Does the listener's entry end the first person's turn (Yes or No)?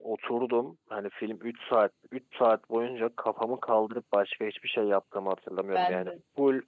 No